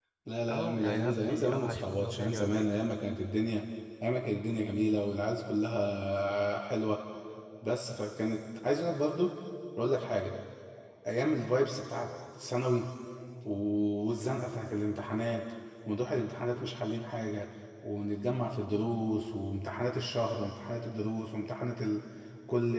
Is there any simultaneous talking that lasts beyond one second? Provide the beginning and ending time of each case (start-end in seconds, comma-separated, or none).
0.5-2.7